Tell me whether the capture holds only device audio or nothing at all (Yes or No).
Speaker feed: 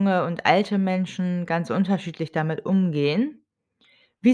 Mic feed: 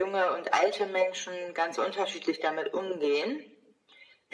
Yes